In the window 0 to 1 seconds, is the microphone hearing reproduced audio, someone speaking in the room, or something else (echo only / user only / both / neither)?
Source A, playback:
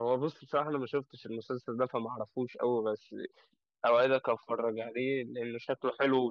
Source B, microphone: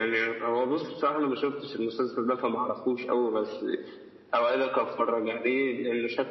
echo only